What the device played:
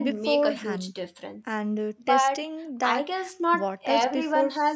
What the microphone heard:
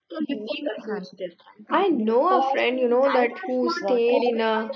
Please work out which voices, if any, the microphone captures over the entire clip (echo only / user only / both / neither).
both